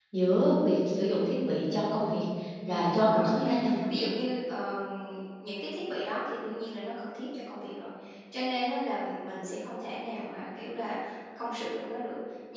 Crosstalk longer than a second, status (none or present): present